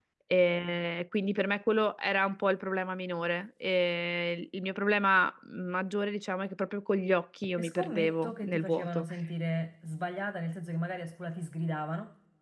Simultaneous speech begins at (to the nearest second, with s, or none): 8 s